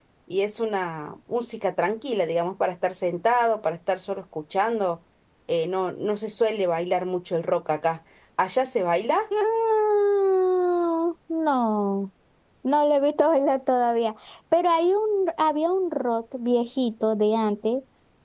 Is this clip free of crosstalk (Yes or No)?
Yes